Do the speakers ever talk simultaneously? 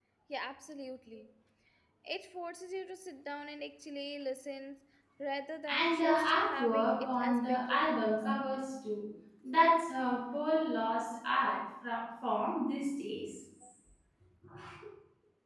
Yes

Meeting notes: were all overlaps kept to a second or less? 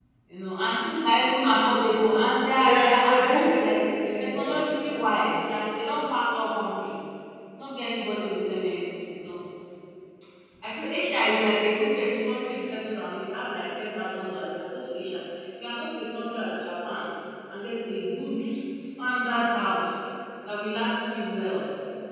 No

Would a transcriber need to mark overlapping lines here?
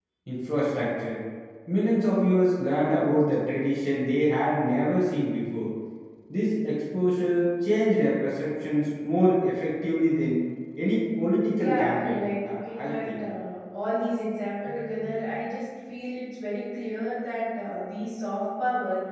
Yes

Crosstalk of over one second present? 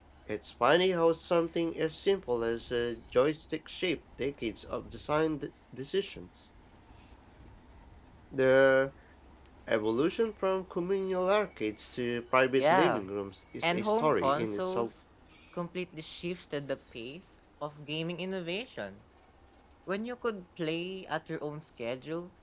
Yes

